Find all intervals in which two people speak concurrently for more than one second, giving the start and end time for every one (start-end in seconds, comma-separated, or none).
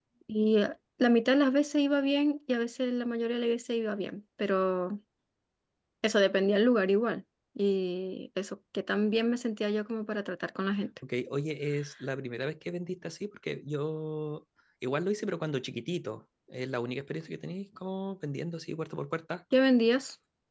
none